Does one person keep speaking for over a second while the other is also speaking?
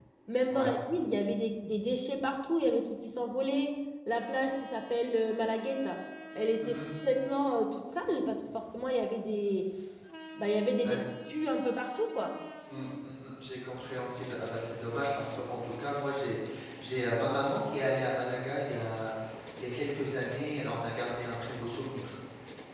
No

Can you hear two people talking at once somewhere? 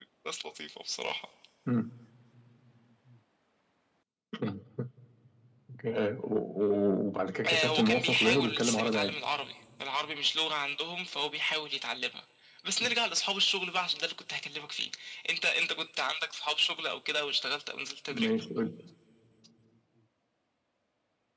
Yes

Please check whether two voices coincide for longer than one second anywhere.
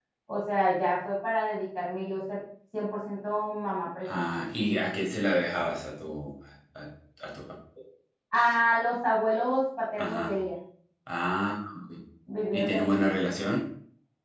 No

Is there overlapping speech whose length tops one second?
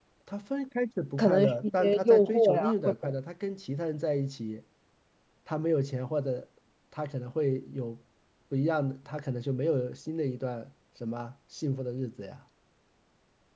Yes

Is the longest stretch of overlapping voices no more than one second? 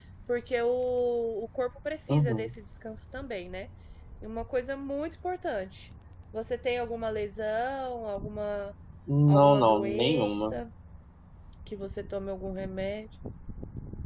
No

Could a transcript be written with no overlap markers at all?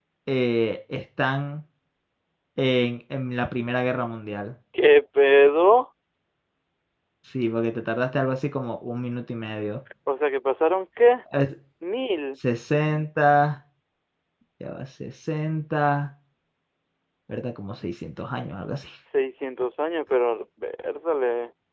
Yes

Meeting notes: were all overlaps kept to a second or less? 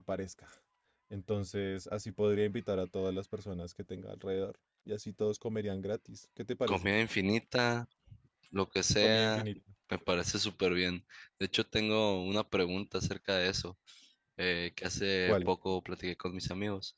Yes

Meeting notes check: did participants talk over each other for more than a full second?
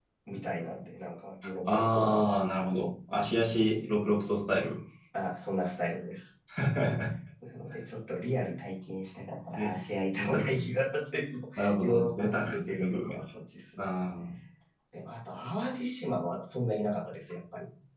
Yes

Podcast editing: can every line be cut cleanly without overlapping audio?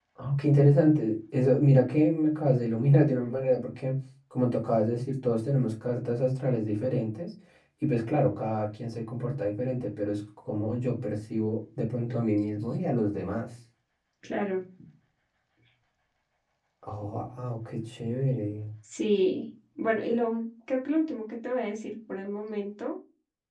Yes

